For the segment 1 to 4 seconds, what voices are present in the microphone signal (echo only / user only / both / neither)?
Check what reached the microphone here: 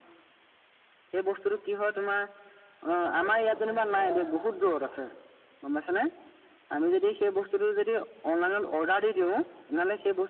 both